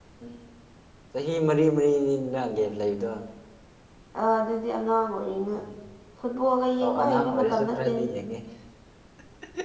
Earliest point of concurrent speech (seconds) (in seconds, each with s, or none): 6.8 s